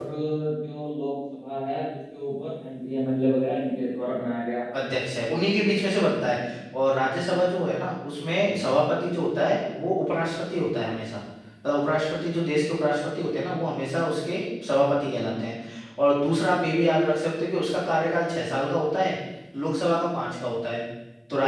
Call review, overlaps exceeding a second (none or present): none